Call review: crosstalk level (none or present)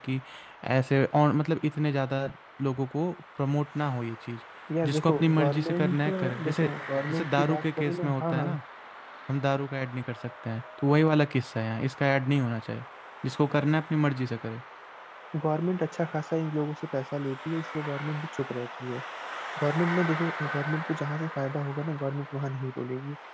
present